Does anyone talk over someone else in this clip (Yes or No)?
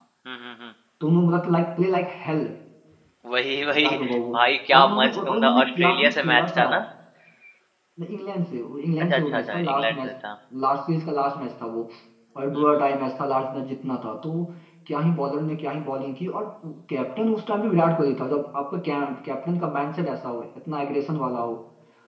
Yes